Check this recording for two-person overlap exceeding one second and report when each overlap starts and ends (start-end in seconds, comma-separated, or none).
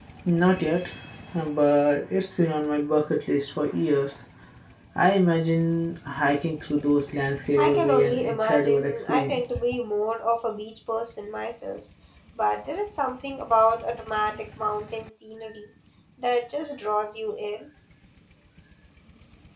7.6-9.4